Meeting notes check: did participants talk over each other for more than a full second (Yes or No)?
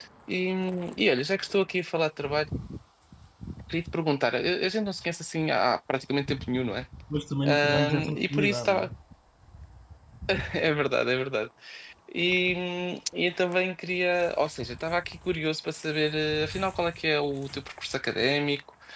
Yes